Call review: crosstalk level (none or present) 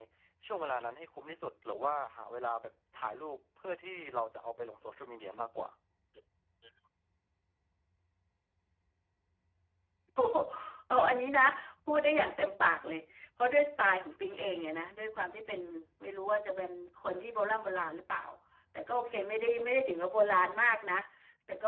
none